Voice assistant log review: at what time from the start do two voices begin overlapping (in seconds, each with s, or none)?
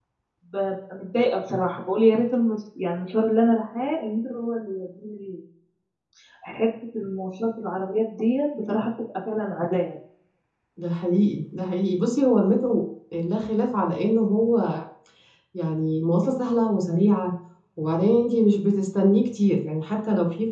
none